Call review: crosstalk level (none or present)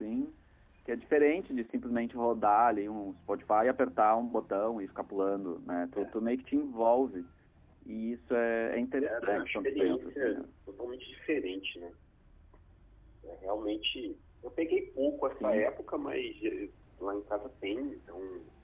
present